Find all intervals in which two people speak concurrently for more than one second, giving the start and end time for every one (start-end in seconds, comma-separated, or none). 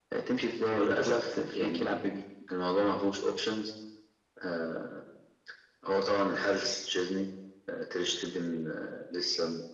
0.8-2.0